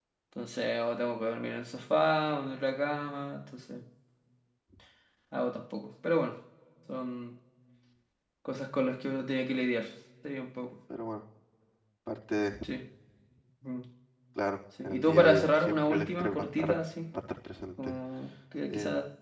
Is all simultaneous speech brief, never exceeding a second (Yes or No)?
No